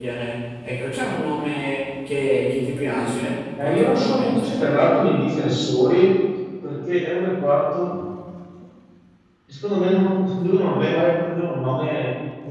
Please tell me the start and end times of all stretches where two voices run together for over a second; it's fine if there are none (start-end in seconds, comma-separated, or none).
3.6-4.8